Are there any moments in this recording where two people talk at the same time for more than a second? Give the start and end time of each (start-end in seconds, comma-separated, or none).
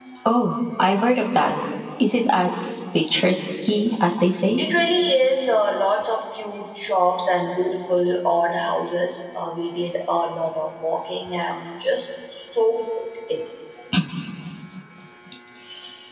none